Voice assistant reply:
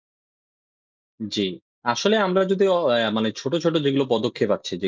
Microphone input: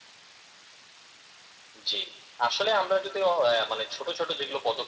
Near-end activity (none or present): none